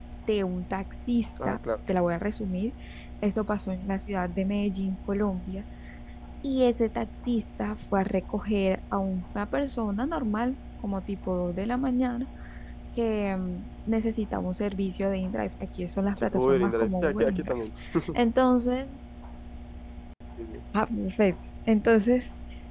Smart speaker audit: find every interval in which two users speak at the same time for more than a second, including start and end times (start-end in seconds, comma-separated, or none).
16.2-17.6